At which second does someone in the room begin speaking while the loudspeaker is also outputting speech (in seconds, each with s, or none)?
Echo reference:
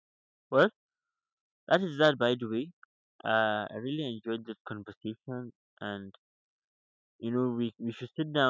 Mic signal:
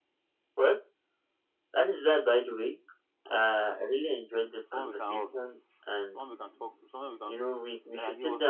4.7 s